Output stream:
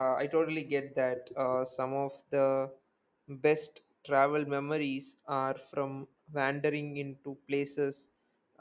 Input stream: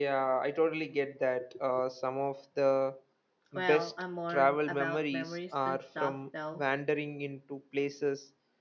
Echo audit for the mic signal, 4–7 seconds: both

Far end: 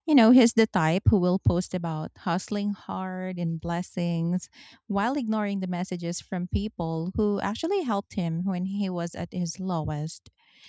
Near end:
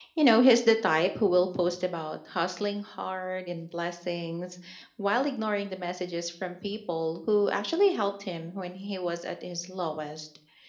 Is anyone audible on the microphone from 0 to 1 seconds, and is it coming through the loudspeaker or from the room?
echo only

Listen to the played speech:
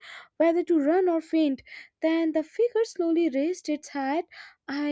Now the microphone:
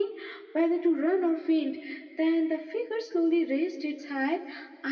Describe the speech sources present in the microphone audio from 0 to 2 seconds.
echo only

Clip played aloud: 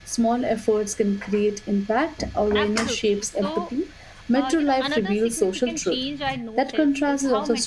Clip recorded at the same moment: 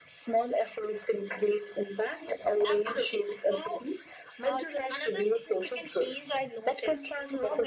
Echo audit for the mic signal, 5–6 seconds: echo only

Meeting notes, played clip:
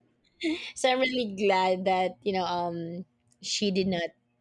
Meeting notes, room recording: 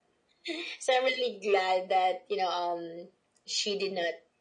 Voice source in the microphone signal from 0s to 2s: echo only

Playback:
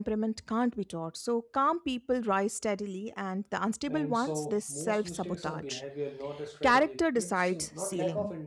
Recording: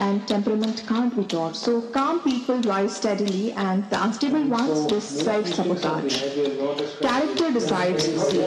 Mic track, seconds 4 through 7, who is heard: echo only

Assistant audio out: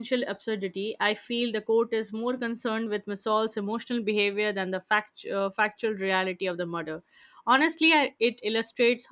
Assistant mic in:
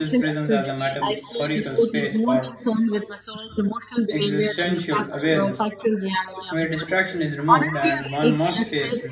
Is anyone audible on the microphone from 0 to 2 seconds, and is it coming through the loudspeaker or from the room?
both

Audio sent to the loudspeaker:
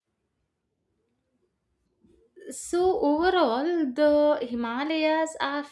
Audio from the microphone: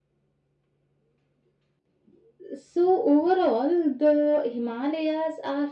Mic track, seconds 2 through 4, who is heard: echo only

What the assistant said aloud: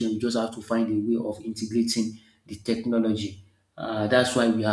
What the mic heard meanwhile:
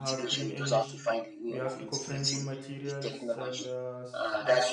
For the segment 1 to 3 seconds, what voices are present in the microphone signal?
both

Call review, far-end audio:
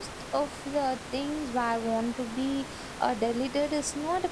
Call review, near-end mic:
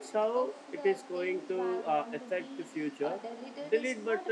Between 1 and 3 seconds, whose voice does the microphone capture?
both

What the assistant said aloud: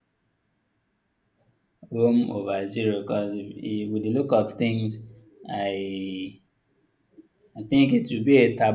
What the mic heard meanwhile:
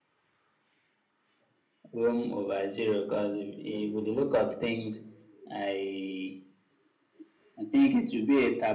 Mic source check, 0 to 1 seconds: neither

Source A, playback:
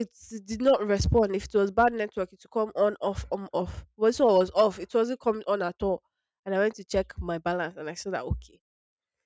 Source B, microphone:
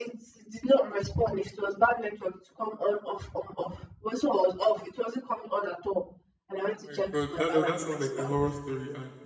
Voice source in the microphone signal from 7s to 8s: both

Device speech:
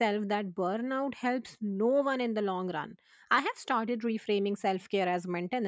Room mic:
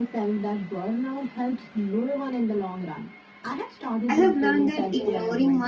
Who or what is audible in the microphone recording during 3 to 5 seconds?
both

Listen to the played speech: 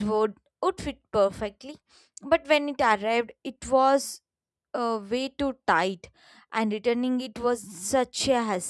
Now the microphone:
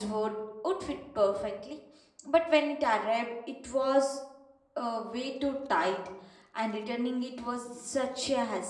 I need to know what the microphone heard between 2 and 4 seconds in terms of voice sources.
echo only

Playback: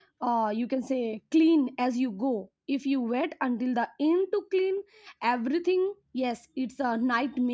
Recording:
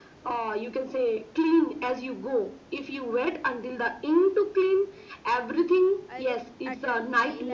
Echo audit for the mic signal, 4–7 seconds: both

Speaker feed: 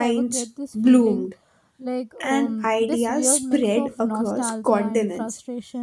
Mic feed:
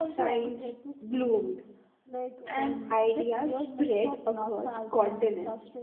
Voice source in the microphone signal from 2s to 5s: echo only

